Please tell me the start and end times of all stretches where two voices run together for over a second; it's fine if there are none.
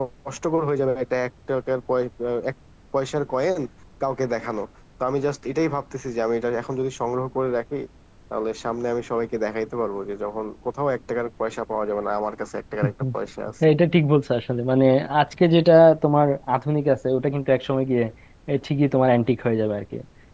none

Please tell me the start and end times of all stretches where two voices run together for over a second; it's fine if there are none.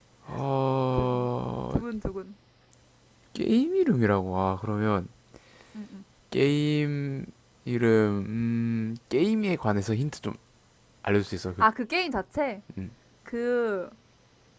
none

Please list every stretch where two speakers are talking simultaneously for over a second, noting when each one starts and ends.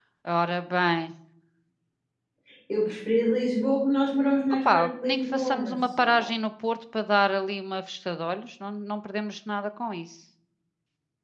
4.6-6.2

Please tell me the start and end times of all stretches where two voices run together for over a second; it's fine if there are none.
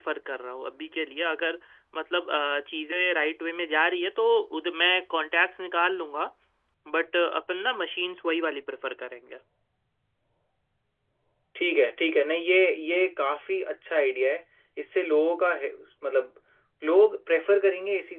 none

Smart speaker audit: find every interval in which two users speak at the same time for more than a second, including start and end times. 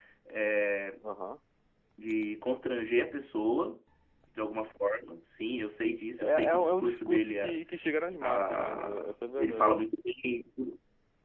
6.2-7.6, 8.2-9.9

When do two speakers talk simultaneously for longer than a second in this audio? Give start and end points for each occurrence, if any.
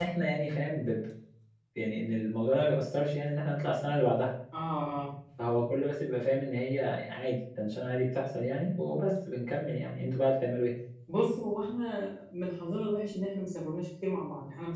none

